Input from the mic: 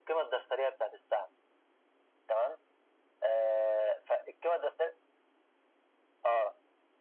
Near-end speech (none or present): none